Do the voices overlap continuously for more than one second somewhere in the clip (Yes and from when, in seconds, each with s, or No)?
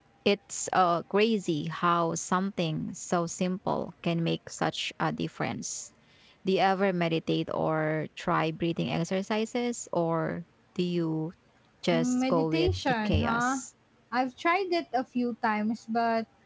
Yes, from 11.9 s